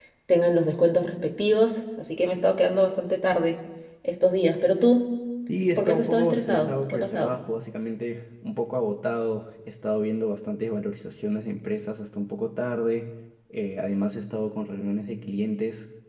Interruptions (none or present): present